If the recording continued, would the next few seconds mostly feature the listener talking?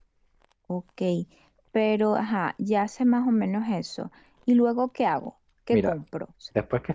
Yes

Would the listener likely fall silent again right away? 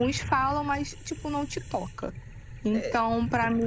Yes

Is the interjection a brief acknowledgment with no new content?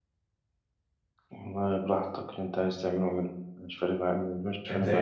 No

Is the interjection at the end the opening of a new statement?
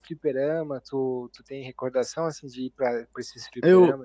Yes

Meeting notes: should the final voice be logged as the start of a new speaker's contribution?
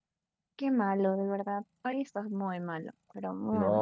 Yes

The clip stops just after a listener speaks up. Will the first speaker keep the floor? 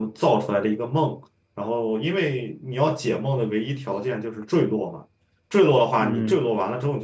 Yes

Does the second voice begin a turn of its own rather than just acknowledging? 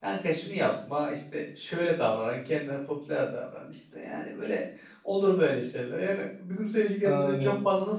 No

